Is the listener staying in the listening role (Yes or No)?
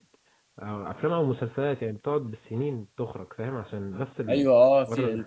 No